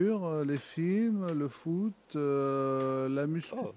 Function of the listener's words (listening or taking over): listening